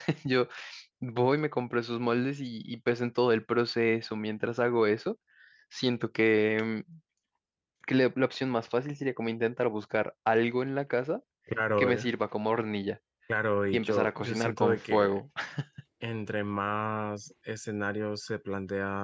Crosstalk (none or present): present